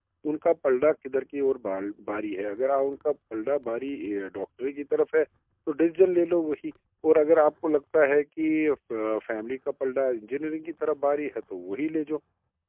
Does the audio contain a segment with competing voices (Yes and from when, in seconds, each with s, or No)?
No